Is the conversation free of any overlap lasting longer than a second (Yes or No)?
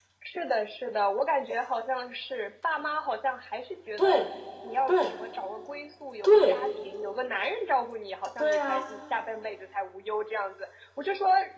Yes